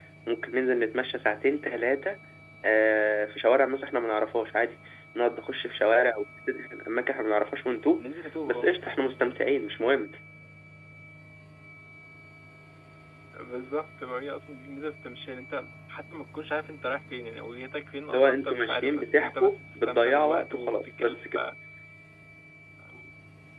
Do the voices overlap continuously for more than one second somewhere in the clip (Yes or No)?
Yes